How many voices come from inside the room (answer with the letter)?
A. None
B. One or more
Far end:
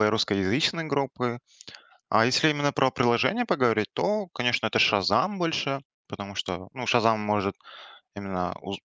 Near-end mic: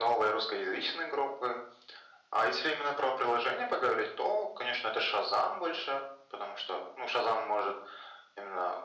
A